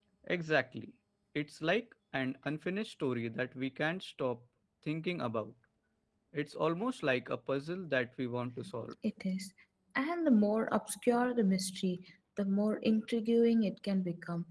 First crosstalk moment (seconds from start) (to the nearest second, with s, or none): none